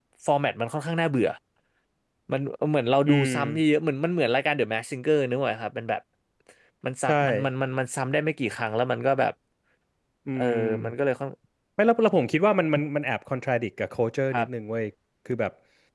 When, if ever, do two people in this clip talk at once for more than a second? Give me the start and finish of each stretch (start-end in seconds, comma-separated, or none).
none